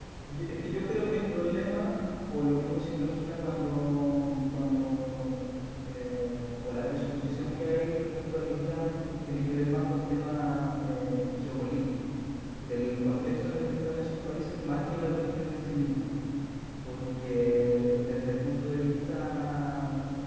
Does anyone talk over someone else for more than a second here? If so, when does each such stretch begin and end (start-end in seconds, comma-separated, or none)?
none